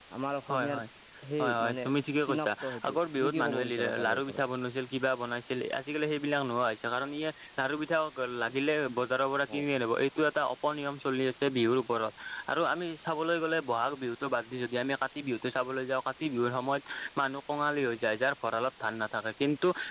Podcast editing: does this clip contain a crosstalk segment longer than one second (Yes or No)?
Yes